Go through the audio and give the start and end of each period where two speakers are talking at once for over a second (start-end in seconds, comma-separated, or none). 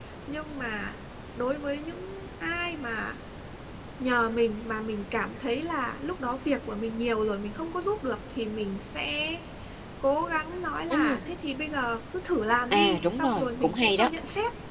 12.7-14.1